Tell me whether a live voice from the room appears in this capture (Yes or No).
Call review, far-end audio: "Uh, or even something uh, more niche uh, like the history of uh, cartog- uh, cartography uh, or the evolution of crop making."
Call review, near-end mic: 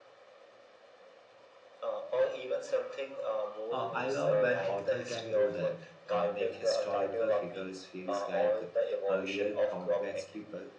Yes